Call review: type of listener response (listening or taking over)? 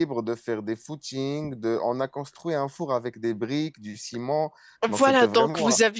taking over